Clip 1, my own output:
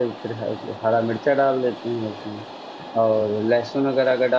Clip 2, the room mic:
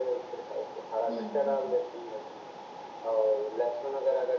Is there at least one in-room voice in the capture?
Yes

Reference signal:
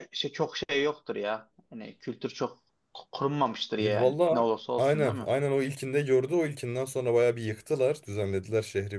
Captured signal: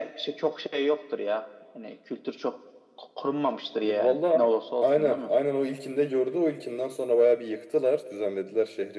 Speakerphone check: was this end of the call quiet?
Yes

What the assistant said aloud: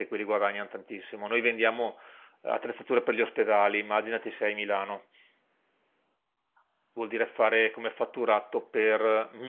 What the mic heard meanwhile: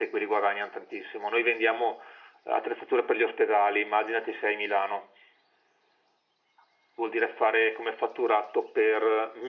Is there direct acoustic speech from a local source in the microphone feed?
No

